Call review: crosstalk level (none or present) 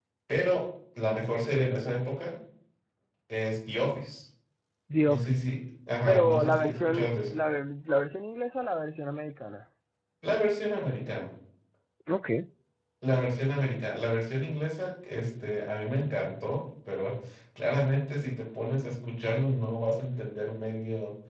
present